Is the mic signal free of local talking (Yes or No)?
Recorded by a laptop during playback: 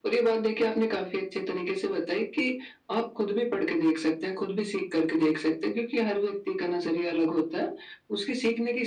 Yes